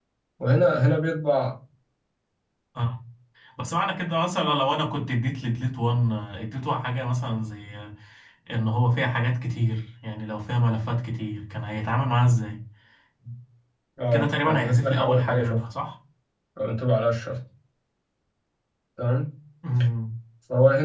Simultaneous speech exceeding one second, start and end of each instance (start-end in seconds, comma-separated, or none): 14.1-15.6